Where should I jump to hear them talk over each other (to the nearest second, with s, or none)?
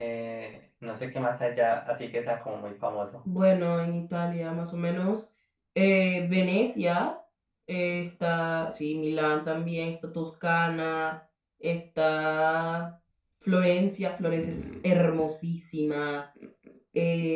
none